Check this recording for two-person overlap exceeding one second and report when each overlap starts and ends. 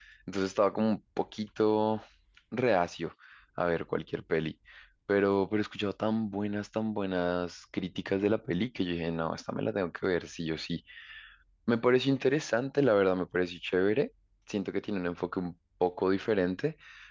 none

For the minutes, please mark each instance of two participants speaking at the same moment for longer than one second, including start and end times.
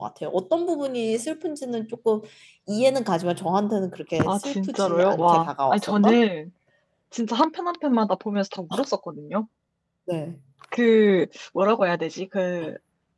4.2-6.2

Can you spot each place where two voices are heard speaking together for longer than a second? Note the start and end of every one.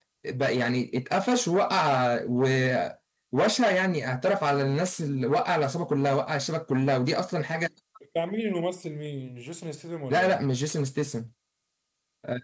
none

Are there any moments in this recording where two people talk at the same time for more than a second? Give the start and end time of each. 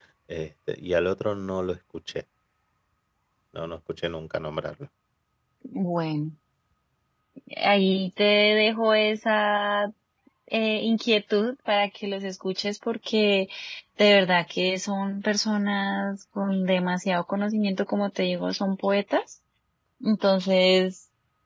none

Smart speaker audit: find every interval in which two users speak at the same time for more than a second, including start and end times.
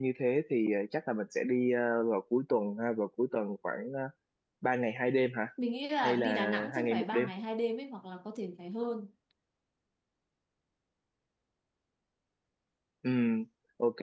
6.0-7.3

